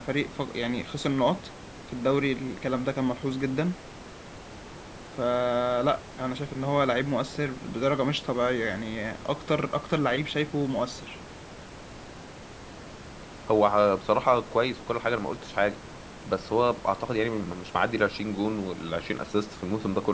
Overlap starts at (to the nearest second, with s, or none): none